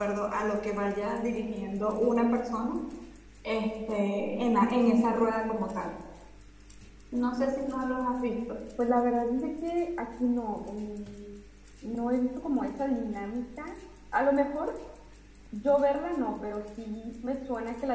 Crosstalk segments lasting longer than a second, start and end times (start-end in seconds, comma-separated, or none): none